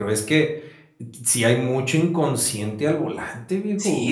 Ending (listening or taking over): taking over